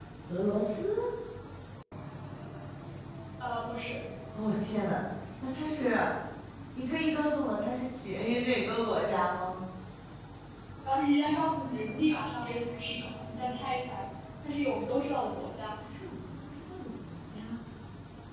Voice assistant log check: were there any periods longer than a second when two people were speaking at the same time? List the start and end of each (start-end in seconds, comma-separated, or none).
none